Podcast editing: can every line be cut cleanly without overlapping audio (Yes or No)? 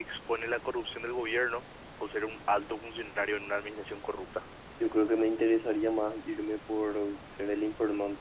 Yes